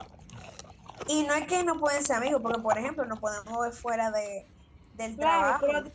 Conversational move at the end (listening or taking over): taking over